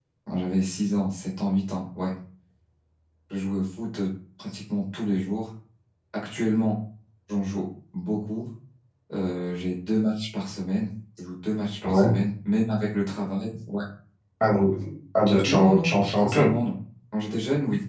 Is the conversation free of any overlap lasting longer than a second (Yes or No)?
No